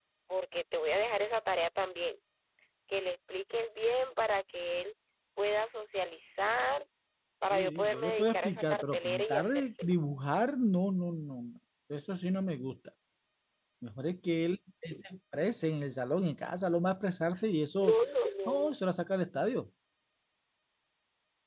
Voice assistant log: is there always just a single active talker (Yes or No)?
No